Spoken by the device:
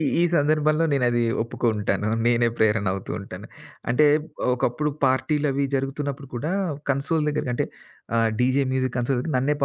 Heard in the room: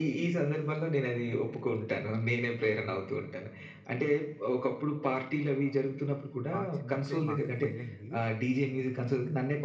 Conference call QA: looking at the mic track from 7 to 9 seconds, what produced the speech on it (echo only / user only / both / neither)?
both